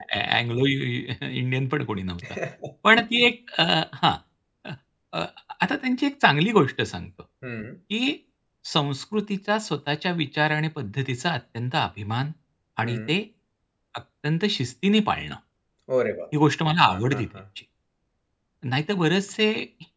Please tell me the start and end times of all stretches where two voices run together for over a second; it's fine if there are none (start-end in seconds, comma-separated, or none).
none